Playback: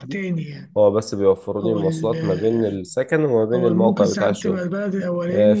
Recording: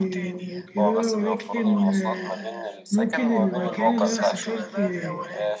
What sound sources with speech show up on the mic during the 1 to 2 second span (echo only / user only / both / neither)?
both